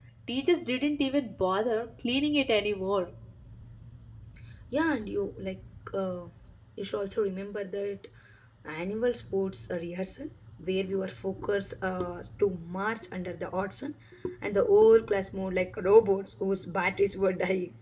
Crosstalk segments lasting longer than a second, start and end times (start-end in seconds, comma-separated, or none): none